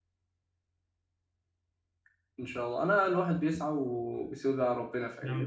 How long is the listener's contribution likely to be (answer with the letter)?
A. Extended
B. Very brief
A